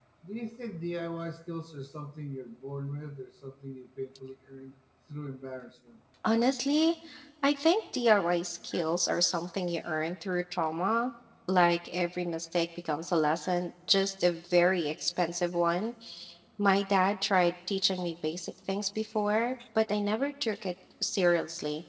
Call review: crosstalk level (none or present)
none